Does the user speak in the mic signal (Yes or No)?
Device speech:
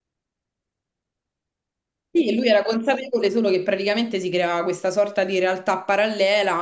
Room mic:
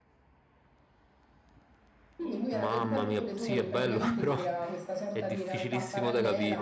Yes